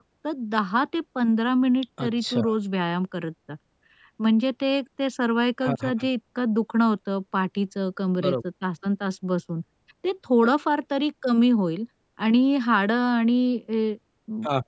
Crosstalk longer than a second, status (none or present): none